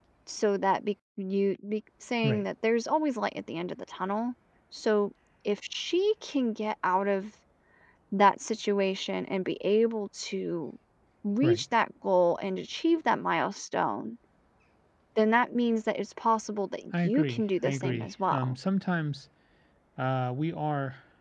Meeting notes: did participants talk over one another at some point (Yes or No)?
Yes